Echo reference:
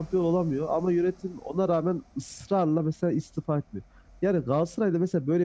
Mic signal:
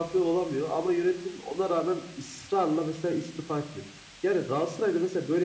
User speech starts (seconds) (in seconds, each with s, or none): none